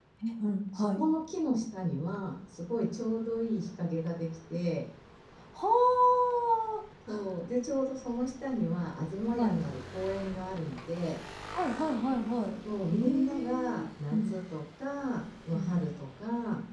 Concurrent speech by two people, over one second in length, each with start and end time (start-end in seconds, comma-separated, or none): 12.9-14.3